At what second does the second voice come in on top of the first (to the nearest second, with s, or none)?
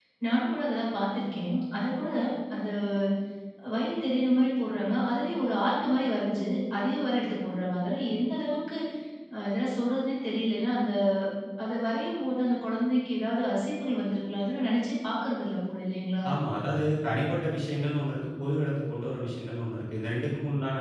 none